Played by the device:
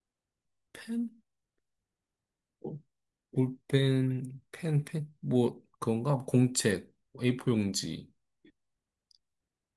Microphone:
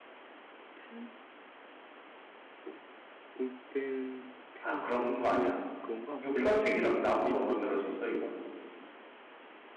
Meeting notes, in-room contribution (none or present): present